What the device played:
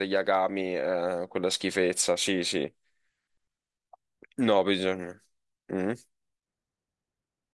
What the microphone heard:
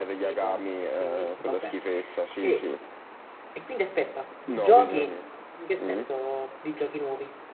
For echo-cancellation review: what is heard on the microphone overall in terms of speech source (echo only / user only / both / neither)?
both